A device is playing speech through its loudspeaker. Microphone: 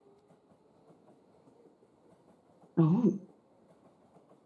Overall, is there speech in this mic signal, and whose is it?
user only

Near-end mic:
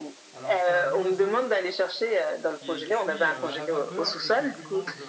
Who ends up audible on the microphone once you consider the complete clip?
both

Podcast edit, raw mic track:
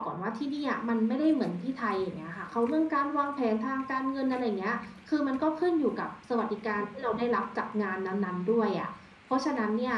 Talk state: echo only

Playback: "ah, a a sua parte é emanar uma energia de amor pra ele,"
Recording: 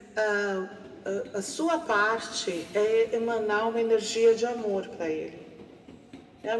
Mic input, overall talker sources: echo only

